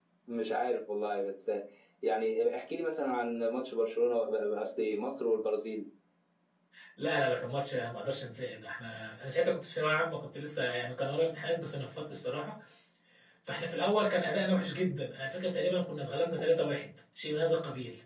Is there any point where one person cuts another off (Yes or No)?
No